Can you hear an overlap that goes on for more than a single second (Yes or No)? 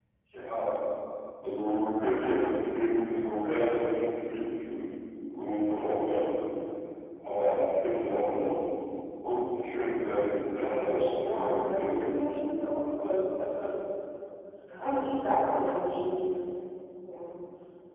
Yes